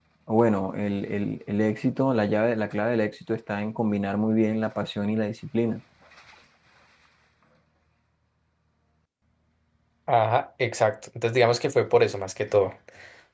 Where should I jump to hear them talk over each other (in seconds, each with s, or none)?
none